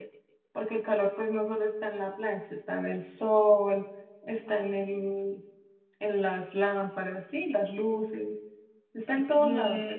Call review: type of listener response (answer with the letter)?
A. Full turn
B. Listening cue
A